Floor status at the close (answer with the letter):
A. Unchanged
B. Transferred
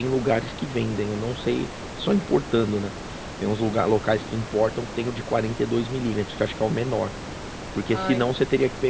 A